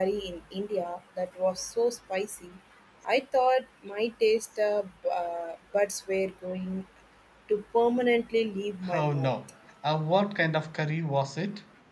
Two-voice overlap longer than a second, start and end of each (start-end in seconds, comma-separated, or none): none